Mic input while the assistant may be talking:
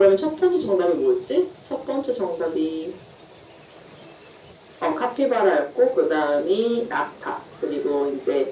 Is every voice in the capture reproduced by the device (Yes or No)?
Yes